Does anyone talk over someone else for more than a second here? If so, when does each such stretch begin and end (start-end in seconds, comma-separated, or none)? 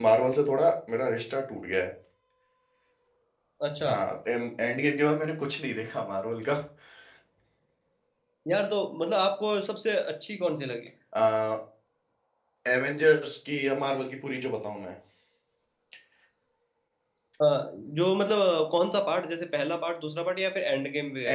none